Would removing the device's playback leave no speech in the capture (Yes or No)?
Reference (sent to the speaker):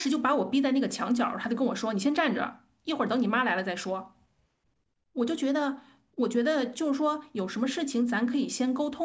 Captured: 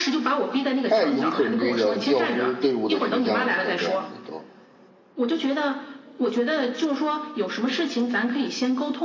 No